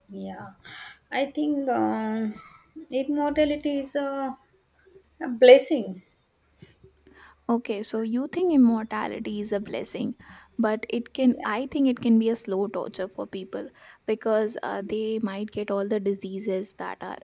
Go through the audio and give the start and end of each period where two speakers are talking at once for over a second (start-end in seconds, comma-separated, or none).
none